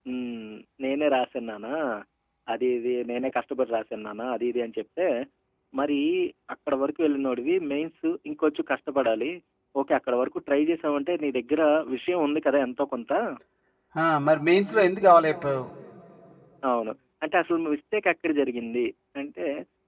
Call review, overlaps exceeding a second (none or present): none